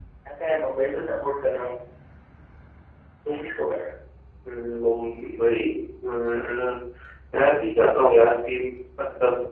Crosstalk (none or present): none